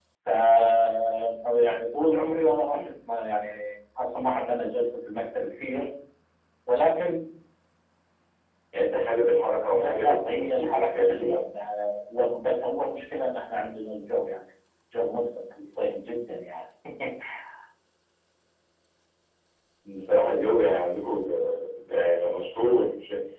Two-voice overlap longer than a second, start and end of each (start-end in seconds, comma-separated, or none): 9.7-11.4